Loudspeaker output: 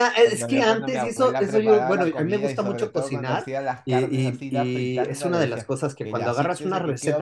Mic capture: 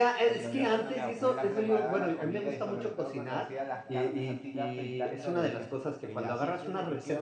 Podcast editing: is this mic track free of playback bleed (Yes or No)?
No